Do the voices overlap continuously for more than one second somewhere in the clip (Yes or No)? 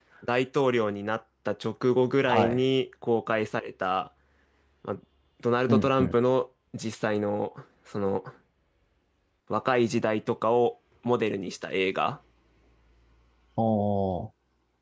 No